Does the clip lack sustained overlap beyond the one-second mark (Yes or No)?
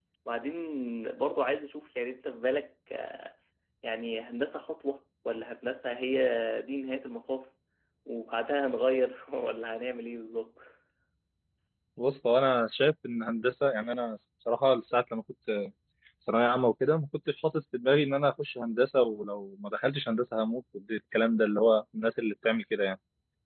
Yes